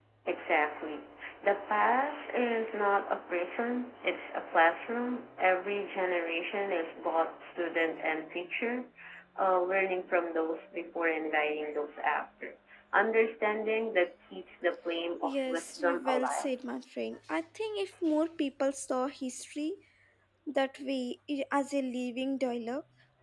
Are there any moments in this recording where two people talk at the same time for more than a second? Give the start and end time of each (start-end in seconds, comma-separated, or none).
15.3-16.5